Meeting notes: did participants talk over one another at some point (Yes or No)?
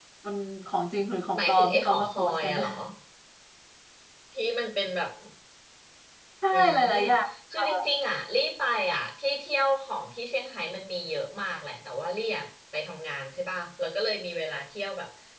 Yes